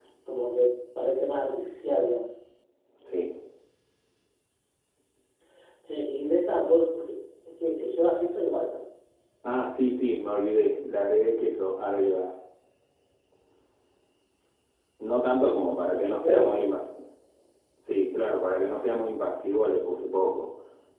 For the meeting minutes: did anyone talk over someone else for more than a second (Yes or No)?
Yes